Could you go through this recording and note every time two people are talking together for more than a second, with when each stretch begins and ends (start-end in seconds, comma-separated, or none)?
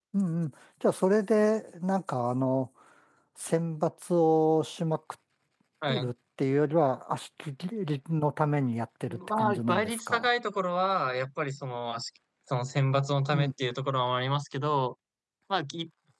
9.1-10.3